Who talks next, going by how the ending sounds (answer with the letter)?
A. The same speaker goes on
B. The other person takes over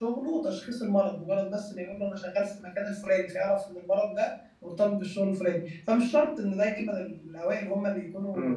B